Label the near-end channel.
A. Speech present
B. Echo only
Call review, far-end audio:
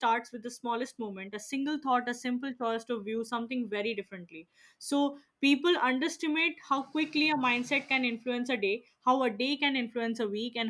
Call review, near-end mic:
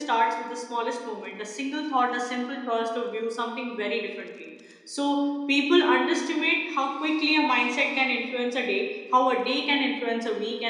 B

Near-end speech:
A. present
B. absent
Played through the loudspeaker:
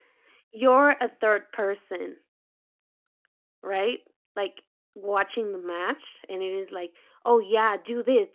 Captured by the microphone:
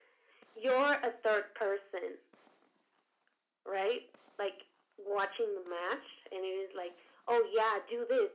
B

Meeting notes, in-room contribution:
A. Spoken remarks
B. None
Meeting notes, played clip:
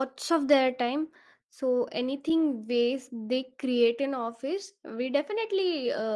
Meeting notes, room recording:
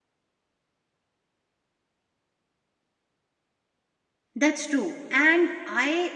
A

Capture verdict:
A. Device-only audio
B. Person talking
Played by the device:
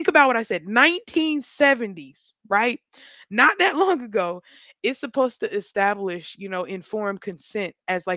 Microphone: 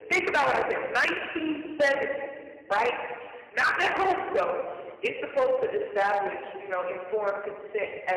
A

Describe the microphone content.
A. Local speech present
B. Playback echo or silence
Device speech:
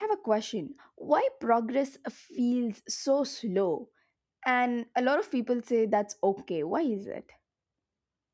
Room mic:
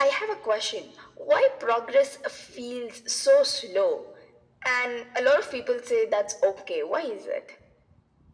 B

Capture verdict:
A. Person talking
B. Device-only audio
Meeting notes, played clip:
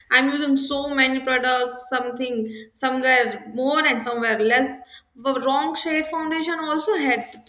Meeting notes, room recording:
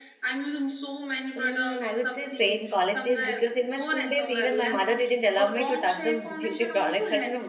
A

